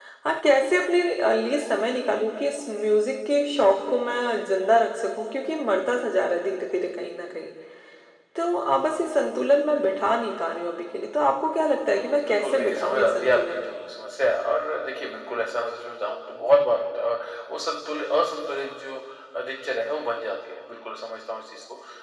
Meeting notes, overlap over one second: present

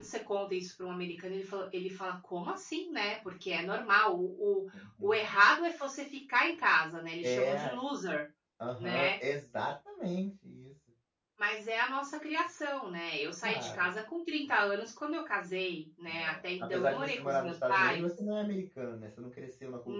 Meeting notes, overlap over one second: present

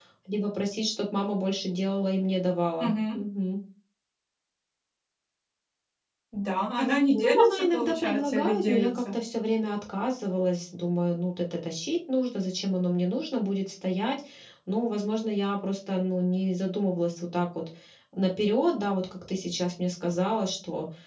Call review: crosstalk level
present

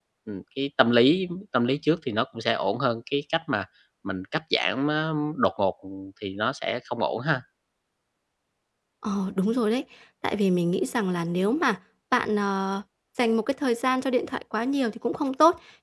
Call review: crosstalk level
none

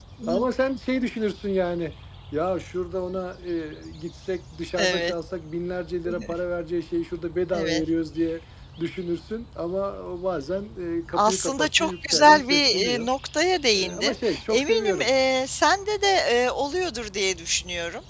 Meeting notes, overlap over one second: present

